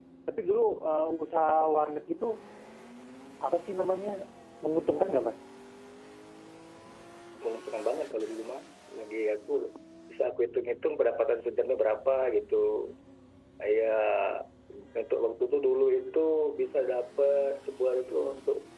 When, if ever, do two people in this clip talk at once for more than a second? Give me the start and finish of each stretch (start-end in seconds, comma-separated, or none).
none